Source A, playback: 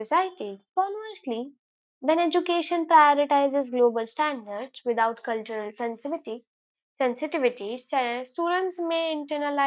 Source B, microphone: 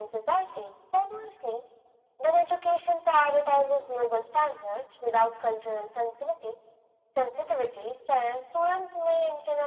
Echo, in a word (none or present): present